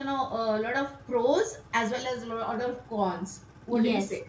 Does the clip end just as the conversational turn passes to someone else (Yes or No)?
Yes